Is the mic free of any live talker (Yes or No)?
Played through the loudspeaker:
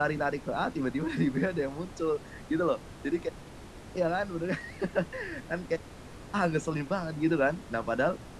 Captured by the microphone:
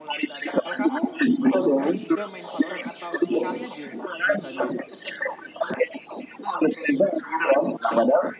No